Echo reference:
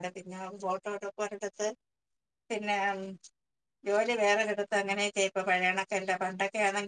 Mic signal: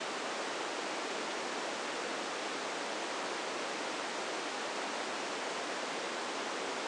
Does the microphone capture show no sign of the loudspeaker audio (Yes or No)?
Yes